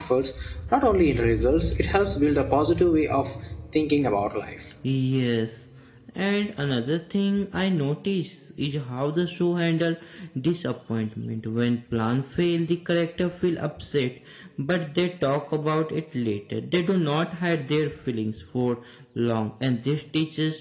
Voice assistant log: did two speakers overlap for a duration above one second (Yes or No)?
No